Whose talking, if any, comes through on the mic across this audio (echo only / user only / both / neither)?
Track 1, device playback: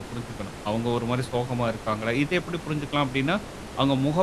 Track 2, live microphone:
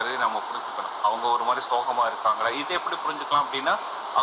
echo only